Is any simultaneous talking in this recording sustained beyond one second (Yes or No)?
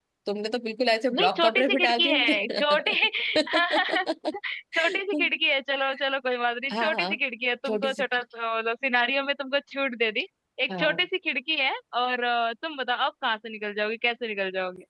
Yes